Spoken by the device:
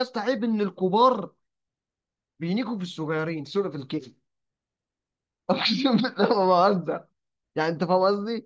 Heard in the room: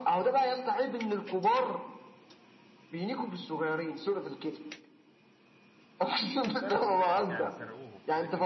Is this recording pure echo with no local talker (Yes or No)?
No